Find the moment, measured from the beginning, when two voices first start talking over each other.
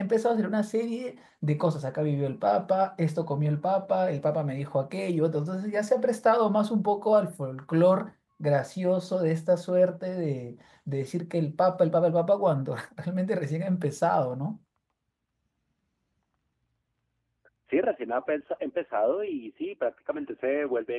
none

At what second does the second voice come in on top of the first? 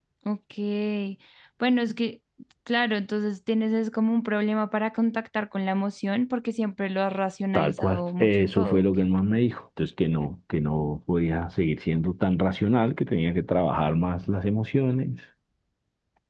8 s

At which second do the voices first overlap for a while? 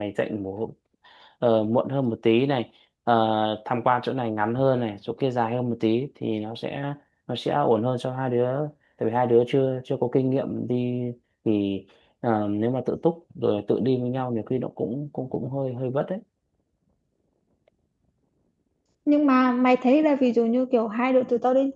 none

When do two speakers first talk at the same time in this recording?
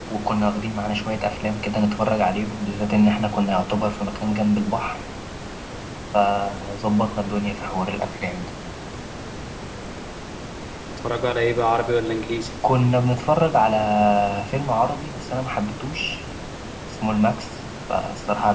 none

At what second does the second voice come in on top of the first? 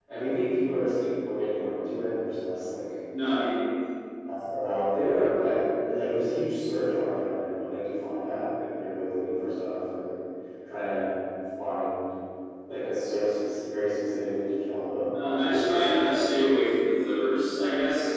none

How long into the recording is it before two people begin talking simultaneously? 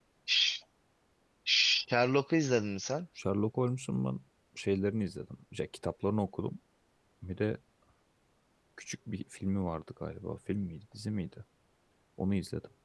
none

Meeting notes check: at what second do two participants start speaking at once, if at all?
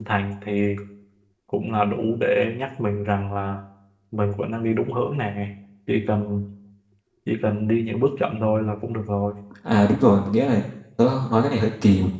none

